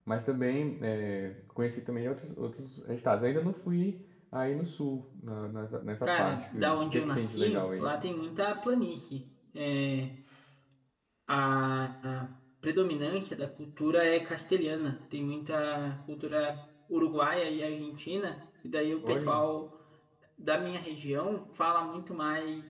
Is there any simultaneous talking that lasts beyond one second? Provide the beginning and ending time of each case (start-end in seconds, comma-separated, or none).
6.0-7.9